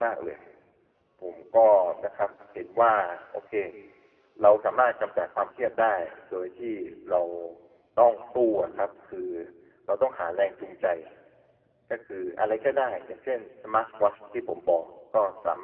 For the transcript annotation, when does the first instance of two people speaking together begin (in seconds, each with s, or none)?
none